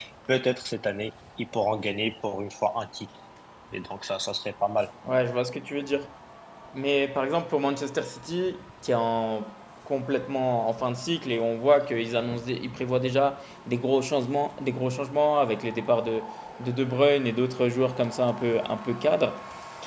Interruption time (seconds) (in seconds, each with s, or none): none